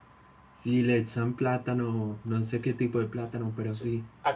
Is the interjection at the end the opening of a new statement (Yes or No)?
Yes